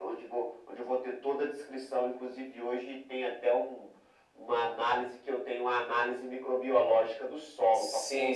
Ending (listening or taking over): listening